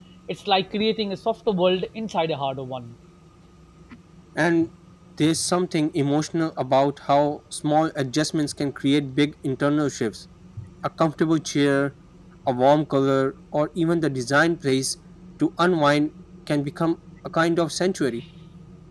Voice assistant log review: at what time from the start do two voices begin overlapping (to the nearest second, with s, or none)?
none